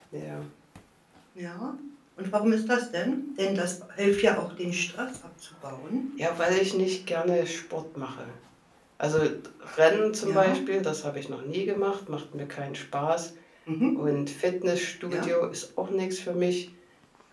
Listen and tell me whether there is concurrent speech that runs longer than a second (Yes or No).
No